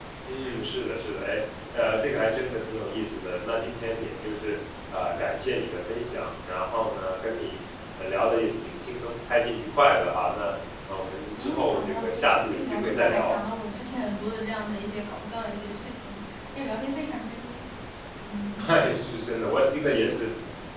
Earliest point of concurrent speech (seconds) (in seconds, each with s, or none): 11.4 s